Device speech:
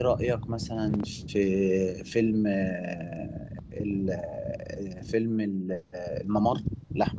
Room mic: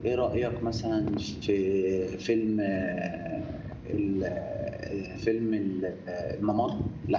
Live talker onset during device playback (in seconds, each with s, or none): none